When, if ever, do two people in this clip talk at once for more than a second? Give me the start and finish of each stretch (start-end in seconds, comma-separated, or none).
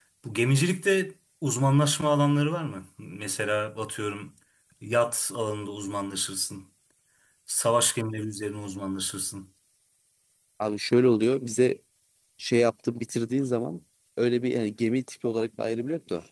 none